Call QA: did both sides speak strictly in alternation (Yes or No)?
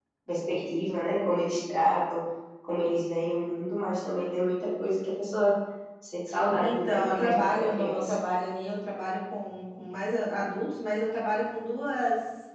No